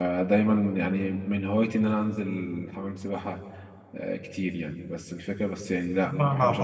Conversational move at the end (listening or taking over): taking over